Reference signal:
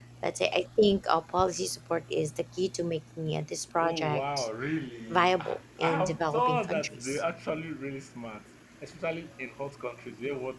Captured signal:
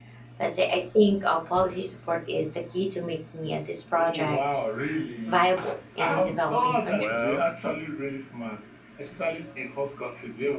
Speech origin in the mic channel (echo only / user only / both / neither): both